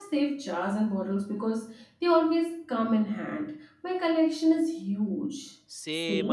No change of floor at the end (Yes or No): No